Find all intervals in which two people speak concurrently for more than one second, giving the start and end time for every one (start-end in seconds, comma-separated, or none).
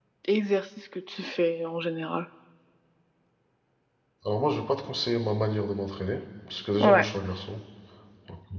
none